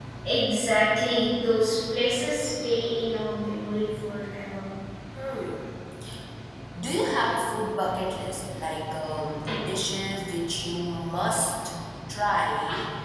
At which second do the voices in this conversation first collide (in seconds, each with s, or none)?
none